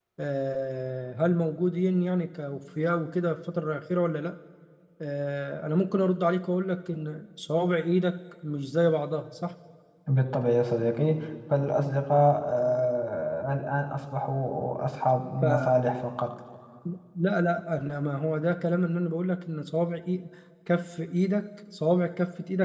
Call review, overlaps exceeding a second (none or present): none